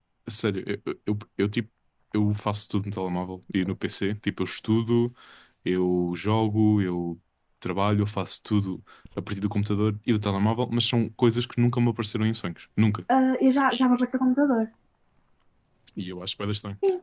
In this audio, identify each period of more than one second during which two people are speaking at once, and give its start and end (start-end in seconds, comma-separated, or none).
none